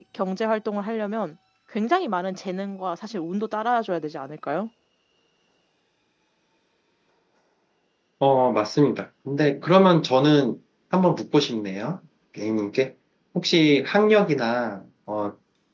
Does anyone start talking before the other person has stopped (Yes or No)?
No